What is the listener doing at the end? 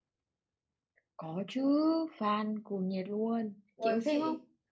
taking over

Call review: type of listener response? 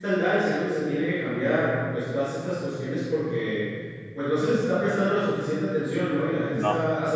listening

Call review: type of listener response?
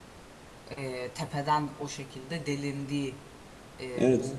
taking over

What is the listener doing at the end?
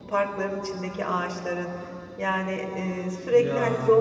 listening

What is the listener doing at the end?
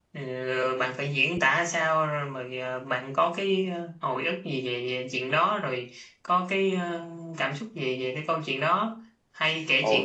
listening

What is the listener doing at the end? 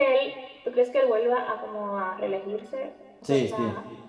taking over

